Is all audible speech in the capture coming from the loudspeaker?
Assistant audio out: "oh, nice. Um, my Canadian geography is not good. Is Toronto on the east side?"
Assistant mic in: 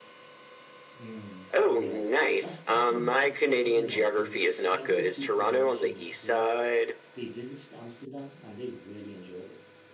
No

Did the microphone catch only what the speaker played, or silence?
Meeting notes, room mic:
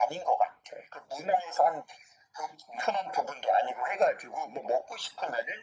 Yes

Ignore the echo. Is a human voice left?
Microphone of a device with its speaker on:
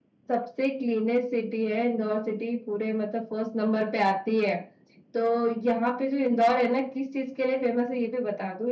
No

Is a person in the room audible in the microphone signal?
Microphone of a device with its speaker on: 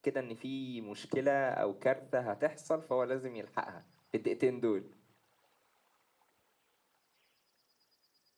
Yes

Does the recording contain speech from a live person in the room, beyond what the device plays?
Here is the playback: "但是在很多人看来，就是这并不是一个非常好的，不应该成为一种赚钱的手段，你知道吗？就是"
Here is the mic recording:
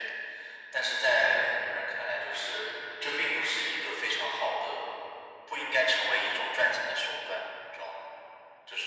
No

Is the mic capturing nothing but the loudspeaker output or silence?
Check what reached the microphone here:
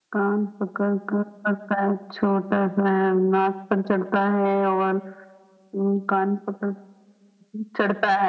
Yes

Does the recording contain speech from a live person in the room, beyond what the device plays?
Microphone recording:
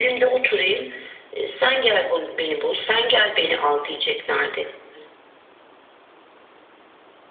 No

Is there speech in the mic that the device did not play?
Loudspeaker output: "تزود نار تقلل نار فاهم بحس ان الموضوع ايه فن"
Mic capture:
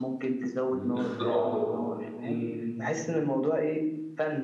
Yes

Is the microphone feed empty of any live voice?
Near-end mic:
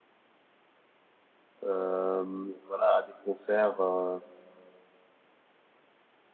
No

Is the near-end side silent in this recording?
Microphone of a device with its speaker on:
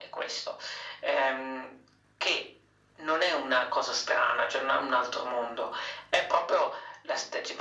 Yes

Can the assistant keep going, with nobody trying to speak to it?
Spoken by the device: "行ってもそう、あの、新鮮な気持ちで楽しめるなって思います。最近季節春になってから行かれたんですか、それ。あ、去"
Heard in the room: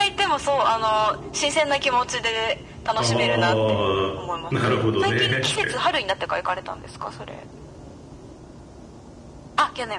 No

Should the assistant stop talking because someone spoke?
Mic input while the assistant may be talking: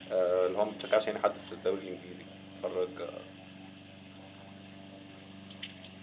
No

